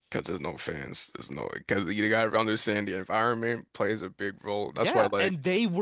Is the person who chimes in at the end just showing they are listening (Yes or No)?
No